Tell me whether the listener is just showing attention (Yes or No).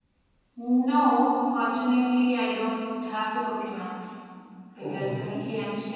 Yes